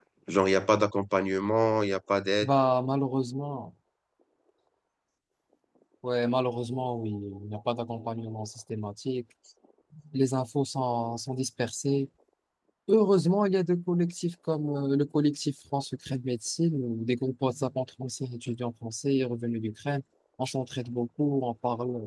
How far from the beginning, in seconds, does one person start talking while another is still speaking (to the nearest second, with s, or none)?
none